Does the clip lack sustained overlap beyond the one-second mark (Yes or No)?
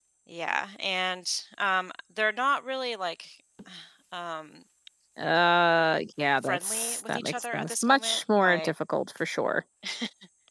No